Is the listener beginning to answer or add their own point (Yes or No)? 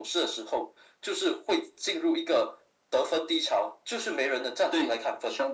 Yes